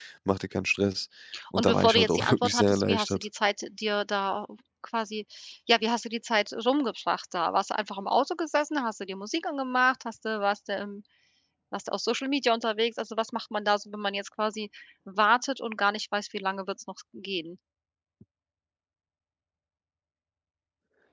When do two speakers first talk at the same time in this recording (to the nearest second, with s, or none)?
2 s